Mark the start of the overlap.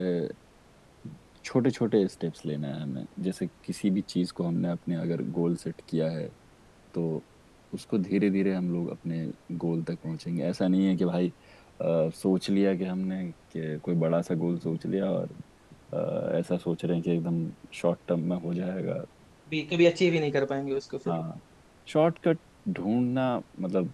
none

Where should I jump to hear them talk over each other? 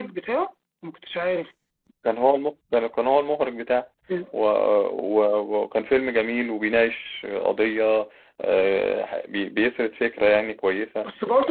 none

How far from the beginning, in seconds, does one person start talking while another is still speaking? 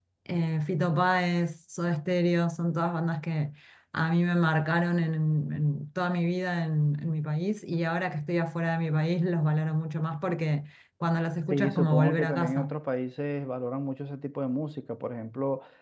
11.5 s

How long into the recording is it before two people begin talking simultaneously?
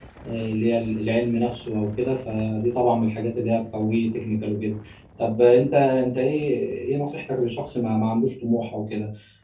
none

